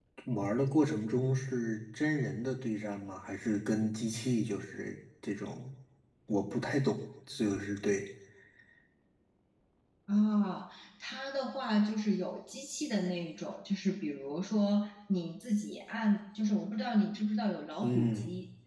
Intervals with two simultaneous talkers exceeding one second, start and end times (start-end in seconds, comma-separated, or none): none